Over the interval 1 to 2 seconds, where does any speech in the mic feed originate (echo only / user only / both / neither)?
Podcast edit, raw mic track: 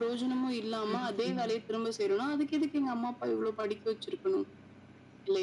both